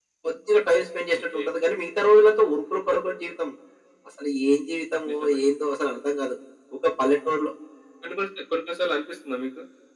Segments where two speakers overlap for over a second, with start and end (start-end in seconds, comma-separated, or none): none